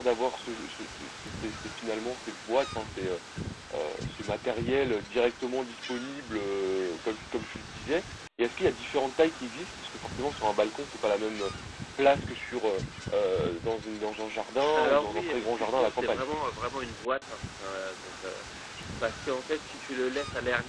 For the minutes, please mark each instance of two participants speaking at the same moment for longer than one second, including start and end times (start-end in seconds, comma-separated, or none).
14.8-16.2